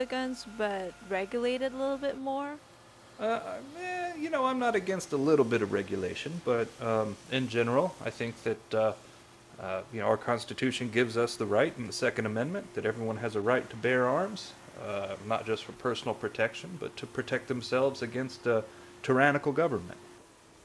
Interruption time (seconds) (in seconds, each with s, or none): none